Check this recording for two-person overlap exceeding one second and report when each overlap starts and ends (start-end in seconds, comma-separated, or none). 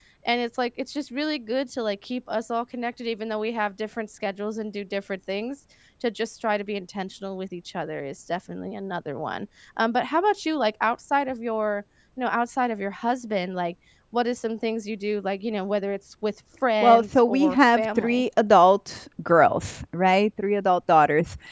16.8-18.2